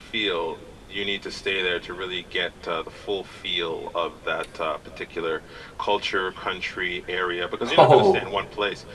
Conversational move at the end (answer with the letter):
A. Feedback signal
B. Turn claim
A